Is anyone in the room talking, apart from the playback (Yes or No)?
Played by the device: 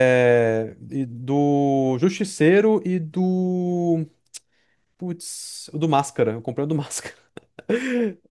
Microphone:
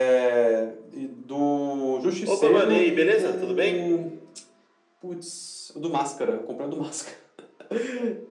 Yes